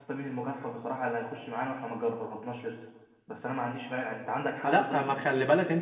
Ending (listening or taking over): taking over